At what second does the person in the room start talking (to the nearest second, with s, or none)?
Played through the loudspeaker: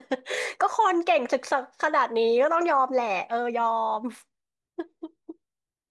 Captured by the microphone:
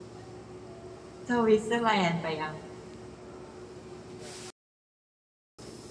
1 s